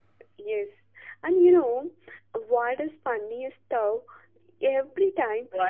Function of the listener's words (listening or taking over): listening